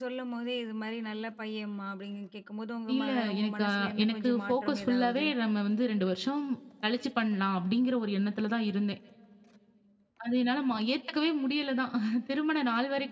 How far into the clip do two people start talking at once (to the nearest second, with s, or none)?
3 s